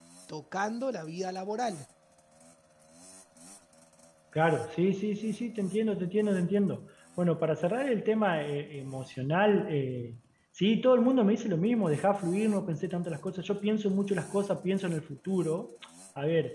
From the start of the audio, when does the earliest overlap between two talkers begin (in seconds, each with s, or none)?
none